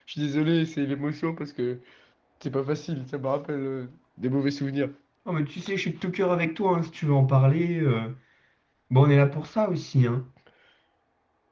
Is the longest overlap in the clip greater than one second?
No

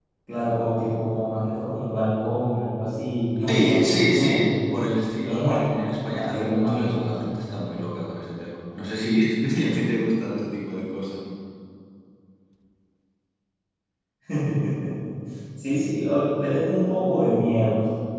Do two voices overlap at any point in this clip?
Yes, from 3.5 s

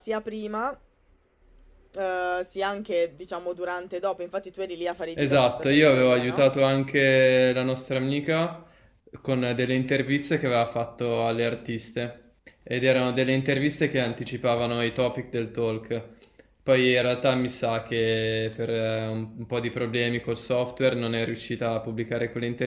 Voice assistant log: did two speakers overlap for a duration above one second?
Yes, from 5.2 s

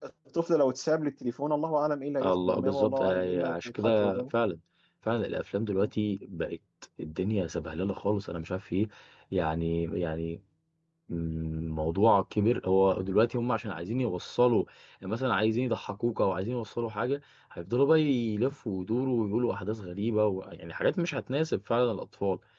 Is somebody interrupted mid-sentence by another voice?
Yes, from 2.2 s

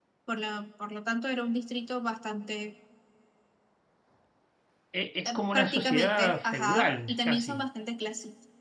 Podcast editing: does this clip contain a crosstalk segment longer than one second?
Yes, from 5.2 s

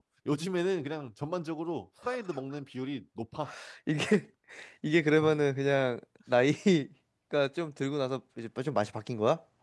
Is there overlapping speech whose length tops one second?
No

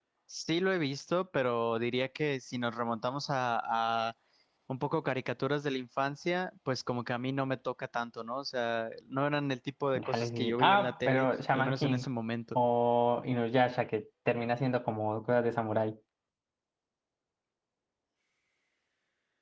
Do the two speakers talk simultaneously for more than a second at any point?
Yes, from 9.9 s

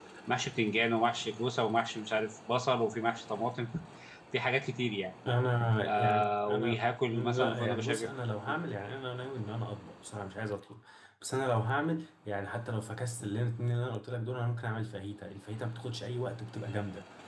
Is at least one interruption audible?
Yes, from 5.8 s

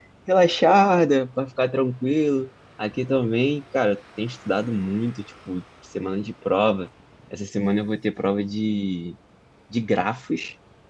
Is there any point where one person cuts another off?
No

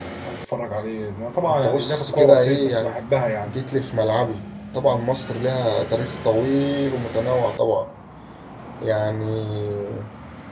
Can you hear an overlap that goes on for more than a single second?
Yes, from 1.5 s

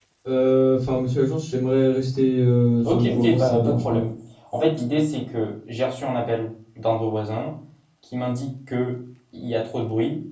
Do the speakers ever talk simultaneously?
Yes, from 2.8 s

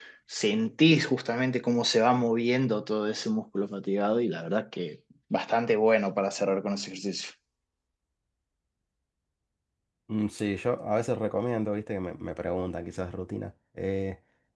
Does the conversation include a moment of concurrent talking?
No

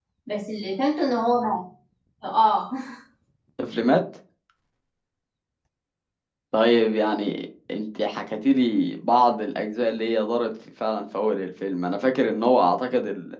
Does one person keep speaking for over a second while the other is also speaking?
No

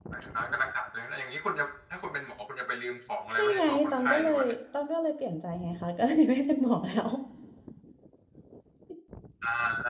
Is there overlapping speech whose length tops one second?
Yes, from 3.3 s

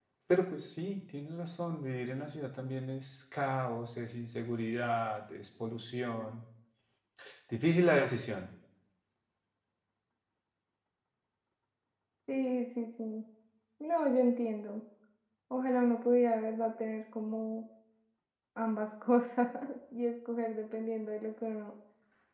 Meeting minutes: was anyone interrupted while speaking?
No

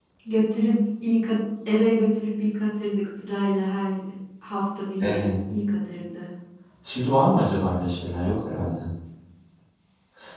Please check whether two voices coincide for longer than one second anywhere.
No

